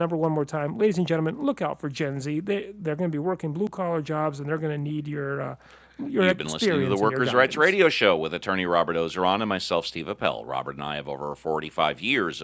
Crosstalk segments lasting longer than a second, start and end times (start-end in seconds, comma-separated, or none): 6.2-7.7